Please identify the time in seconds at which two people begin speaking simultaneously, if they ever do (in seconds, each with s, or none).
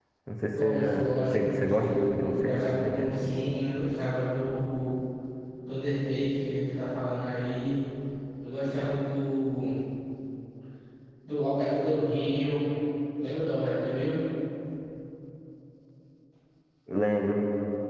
0.5 s